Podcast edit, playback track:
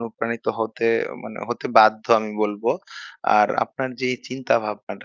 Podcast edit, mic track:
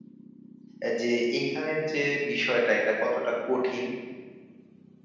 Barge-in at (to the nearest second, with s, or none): 1 s